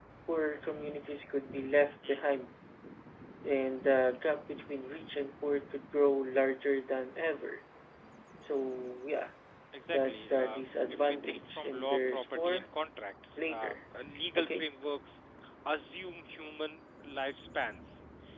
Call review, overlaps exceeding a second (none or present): present